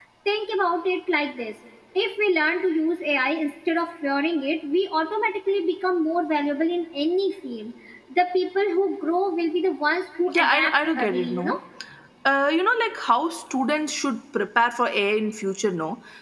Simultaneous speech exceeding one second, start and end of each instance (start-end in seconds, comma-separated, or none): 10.3-11.6